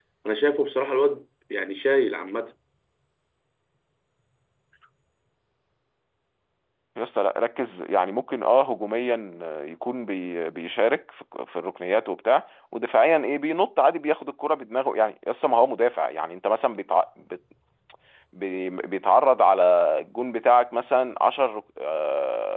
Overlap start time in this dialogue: none

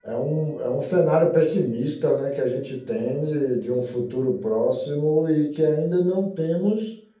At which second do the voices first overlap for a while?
none

